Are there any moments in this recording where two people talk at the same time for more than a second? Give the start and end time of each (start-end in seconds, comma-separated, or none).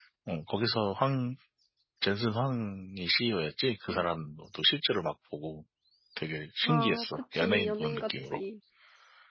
6.6-8.4